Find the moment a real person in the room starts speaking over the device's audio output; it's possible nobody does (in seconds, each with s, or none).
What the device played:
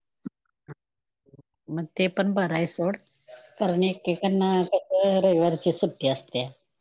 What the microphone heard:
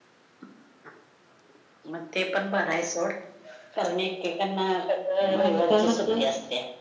5.3 s